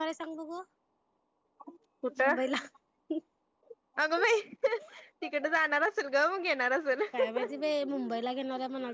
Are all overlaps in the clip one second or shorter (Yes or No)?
Yes